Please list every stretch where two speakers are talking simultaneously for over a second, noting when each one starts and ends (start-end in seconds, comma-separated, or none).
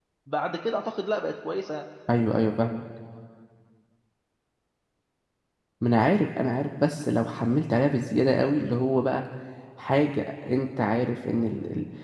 none